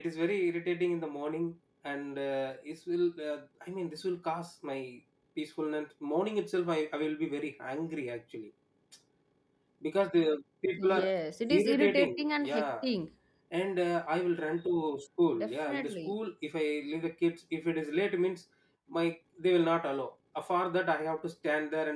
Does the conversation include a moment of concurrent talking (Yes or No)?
Yes